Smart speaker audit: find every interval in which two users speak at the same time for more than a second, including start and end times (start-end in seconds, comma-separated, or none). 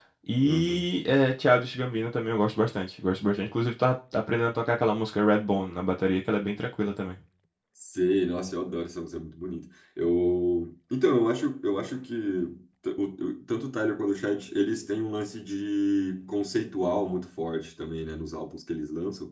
none